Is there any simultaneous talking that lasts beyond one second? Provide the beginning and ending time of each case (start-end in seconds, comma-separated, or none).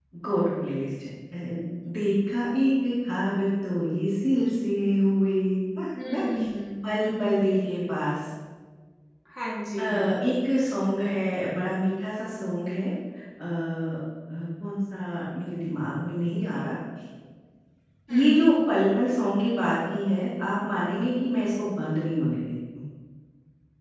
none